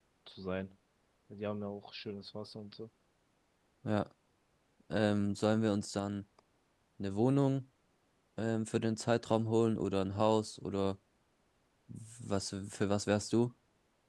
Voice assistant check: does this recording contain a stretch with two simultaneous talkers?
No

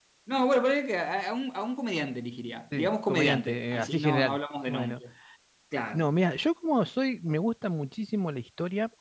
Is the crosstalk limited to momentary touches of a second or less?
No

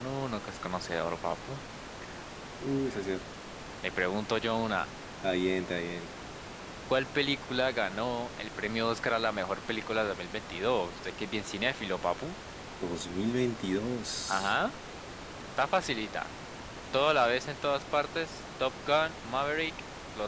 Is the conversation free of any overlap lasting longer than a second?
Yes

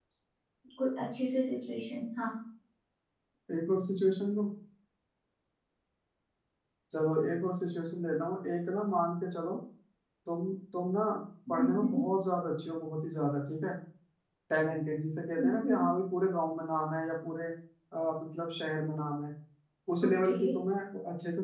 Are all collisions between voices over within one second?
Yes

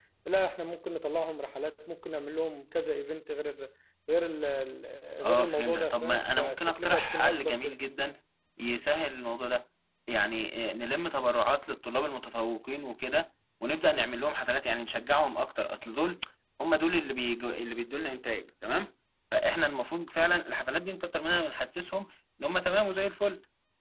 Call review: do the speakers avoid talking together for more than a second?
No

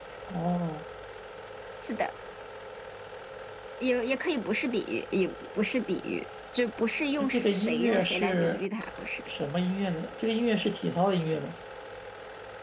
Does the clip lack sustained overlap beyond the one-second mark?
No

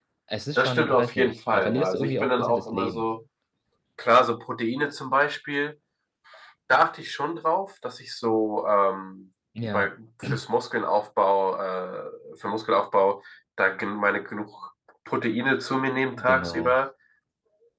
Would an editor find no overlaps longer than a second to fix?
No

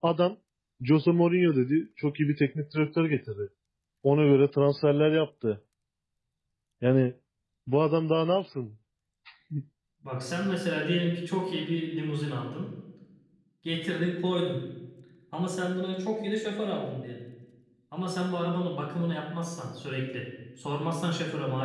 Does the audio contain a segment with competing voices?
No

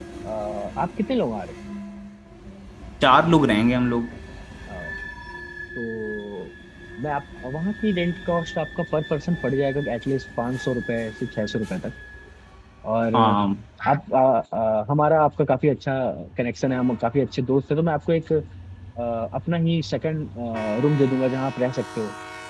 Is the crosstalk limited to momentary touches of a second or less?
Yes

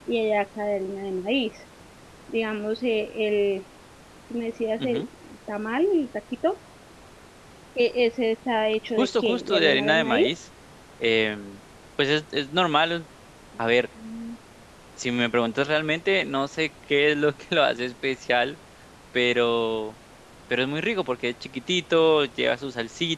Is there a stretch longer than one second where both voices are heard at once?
Yes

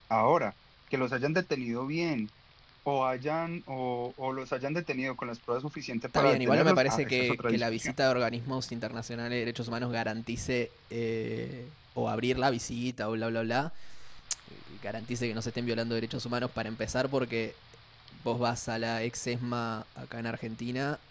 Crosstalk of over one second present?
Yes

